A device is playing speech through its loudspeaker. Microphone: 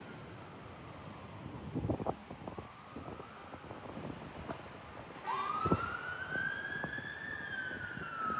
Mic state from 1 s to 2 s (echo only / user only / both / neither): neither